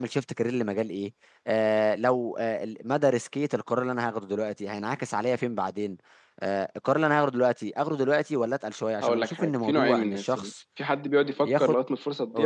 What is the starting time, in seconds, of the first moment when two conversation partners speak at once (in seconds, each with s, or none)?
9.0 s